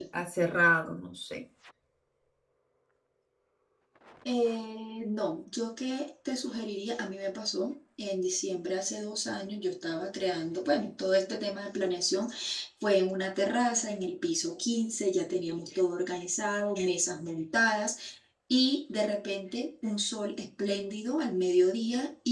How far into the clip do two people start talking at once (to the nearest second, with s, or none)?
none